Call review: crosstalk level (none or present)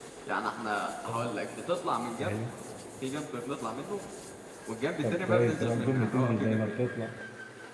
present